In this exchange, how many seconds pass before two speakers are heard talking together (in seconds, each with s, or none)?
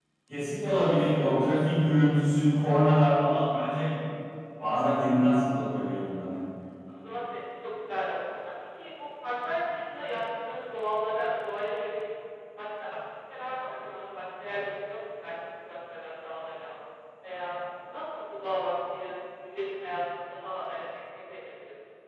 none